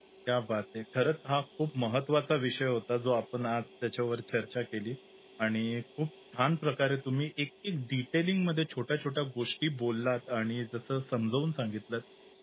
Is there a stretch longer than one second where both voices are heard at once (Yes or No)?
No